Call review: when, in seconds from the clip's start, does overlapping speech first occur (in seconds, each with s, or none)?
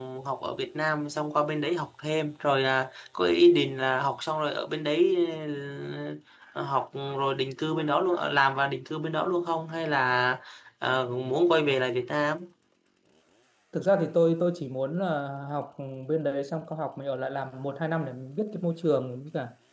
none